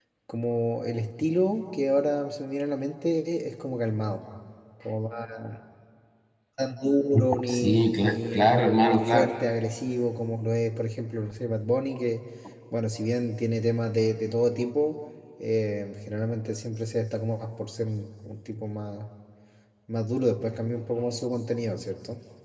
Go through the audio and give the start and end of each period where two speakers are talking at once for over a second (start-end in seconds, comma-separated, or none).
7.5-9.3